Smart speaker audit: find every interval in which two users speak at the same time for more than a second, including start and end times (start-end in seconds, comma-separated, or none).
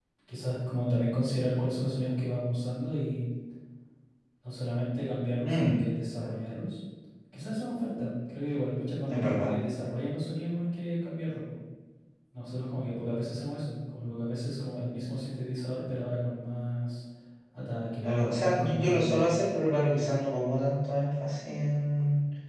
18.0-19.3